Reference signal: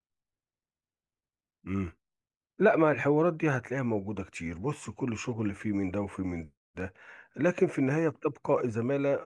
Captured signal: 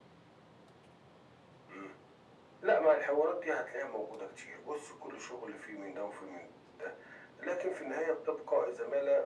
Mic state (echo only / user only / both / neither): echo only